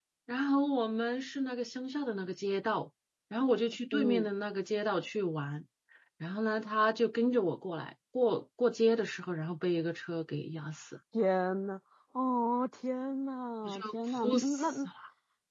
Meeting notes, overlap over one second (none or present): present